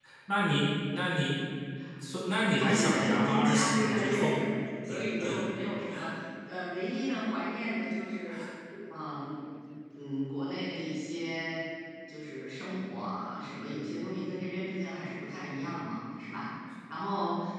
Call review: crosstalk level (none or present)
present